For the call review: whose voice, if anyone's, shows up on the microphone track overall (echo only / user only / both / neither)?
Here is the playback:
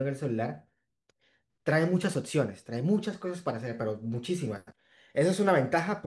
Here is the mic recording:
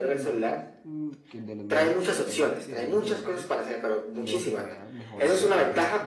both